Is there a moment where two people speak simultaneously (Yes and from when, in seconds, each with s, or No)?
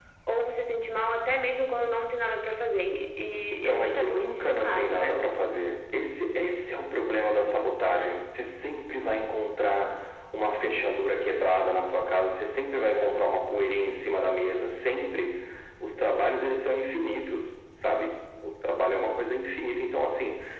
Yes, from 3.6 s